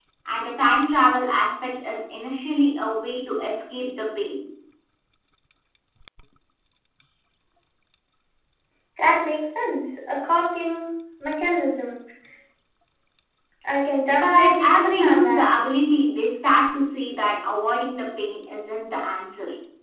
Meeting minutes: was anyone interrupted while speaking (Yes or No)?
Yes